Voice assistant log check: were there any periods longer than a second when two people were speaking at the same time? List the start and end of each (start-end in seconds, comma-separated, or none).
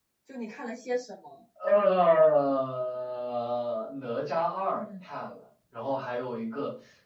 none